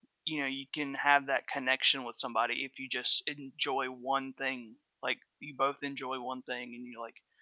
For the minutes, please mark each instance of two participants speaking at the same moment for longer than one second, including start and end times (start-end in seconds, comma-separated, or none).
none